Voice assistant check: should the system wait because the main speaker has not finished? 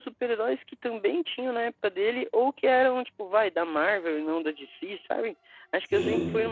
Yes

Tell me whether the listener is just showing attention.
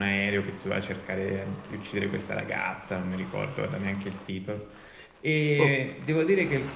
Yes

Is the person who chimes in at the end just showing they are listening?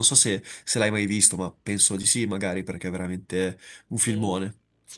No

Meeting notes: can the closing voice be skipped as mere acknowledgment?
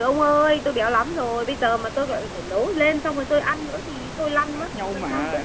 No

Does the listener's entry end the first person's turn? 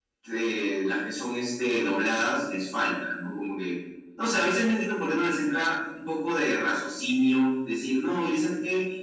No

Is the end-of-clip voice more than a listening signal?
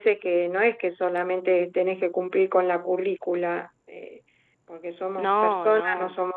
No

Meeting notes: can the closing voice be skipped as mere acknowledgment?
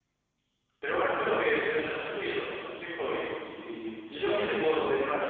No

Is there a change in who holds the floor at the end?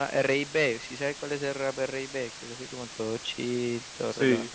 Yes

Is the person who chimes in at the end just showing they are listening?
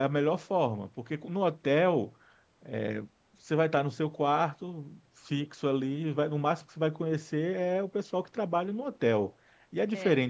Yes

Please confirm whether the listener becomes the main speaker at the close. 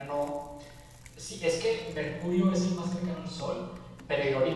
No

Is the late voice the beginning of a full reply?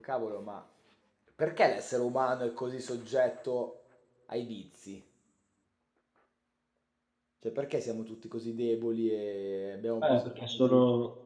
Yes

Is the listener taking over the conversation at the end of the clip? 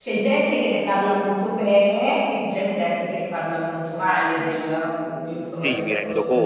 Yes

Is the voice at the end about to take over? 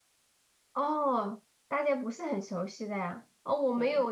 No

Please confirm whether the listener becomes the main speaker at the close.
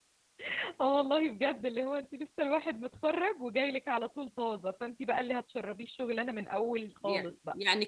Yes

